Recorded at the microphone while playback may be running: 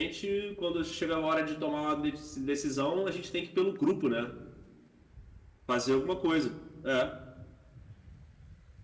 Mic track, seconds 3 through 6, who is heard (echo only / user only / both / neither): user only